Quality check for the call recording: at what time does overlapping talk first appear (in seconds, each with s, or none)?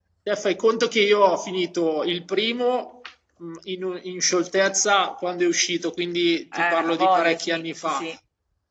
6.5 s